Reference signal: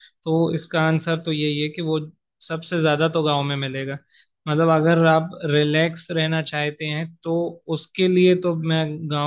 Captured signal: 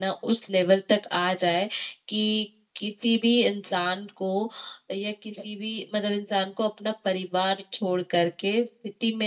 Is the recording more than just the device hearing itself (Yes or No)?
Yes